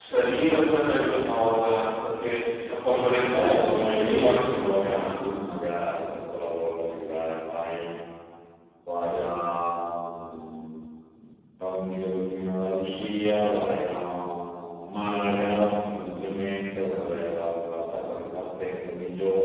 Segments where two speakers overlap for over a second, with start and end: 3.4-5.1

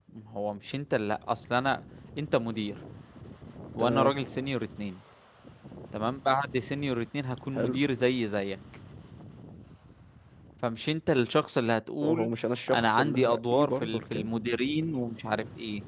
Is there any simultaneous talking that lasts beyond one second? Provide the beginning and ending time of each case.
12.7-14.3

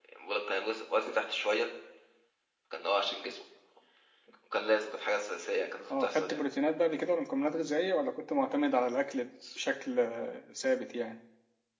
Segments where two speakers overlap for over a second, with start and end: none

